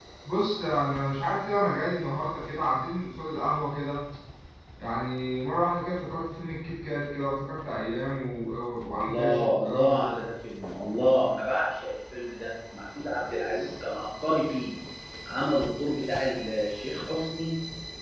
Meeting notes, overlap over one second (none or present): present